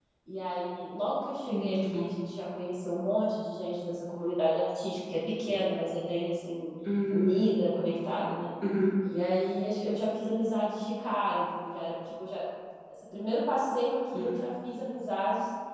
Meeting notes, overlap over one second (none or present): none